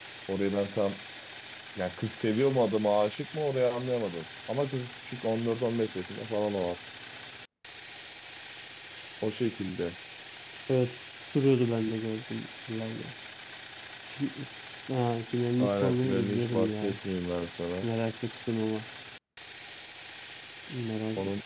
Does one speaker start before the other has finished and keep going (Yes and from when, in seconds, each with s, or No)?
Yes, from 15.6 s